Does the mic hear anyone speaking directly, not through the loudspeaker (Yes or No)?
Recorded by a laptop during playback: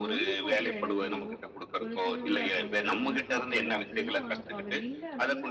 Yes